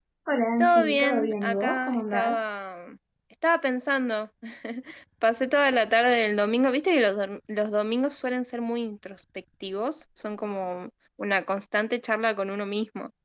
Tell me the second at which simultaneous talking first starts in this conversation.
1 s

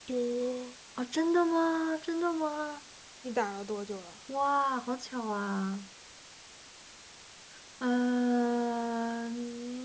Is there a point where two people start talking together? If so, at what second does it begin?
none

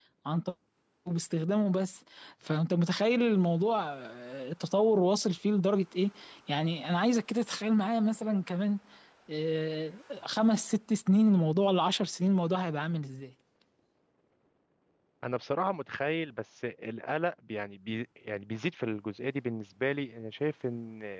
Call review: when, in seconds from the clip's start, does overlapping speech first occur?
none

